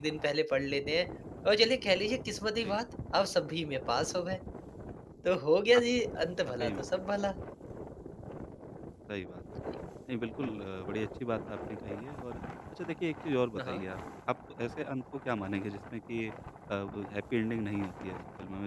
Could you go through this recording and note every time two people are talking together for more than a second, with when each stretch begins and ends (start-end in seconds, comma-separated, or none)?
none